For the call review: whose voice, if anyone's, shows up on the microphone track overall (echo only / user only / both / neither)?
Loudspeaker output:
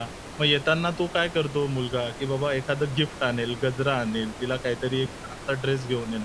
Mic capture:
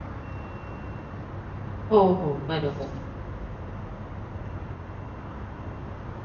user only